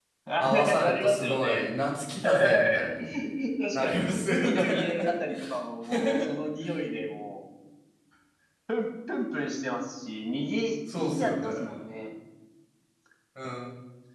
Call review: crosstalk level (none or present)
present